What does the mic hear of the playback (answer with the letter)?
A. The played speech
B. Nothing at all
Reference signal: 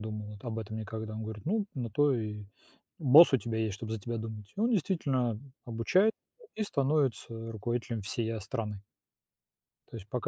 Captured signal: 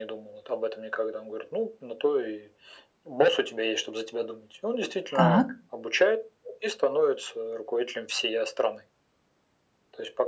A